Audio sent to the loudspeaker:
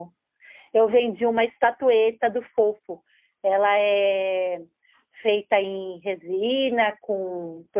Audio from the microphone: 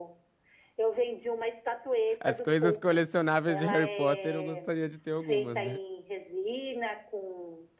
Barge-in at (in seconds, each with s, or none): 2.2 s